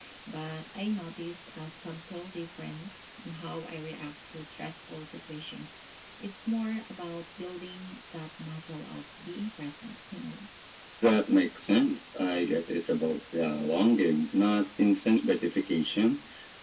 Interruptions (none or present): none